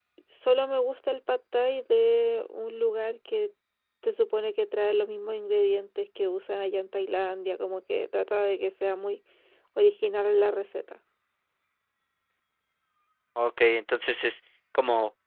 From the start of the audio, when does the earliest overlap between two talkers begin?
none

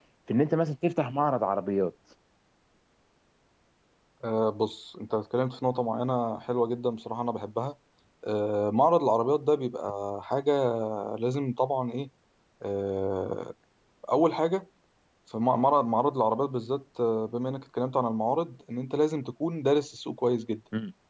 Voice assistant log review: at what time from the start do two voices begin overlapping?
none

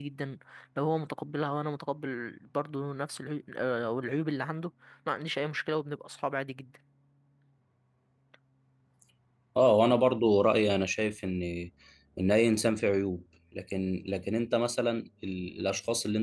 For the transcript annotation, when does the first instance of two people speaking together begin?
none

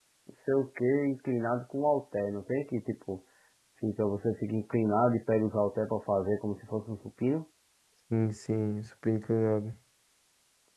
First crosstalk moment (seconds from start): none

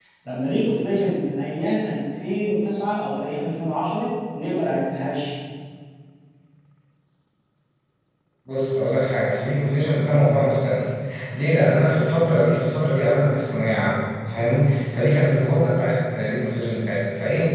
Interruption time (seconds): none

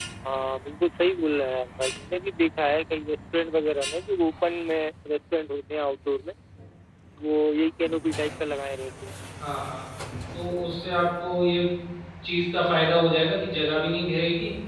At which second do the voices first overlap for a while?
none

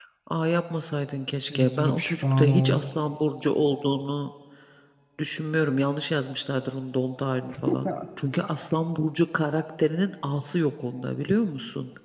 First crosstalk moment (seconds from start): 1.5 s

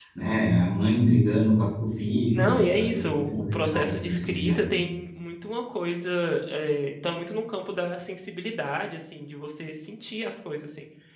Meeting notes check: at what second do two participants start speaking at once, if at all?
2.3 s

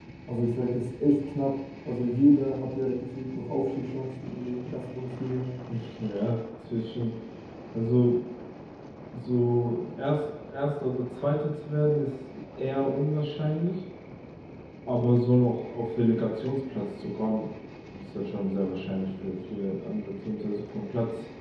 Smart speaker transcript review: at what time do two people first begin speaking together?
none

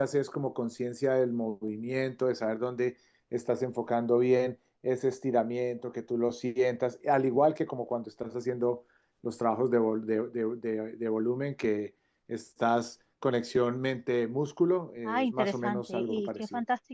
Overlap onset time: 15.0 s

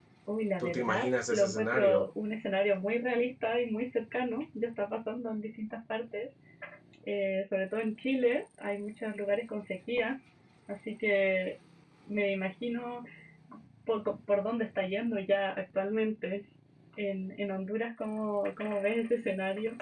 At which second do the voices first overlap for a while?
0.6 s

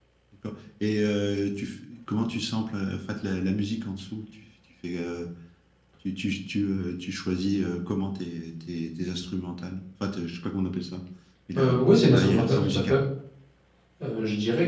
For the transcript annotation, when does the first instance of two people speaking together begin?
11.6 s

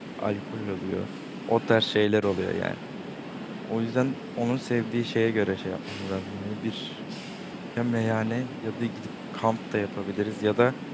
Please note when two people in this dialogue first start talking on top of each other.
none

